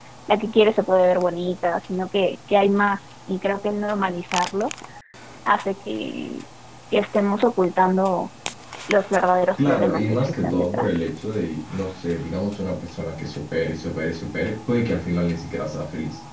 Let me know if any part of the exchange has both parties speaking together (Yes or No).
Yes